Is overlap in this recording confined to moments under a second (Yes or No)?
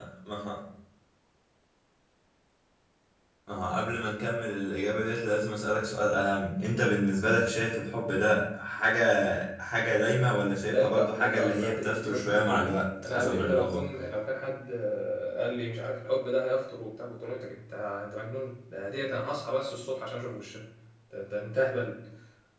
No